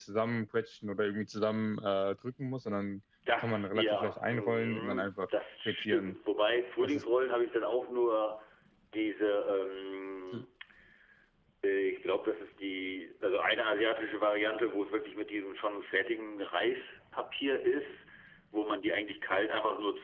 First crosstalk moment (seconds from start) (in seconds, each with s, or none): 3.3 s